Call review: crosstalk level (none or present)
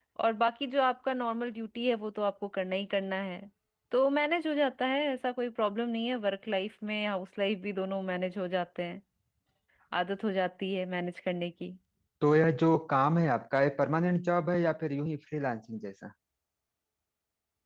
none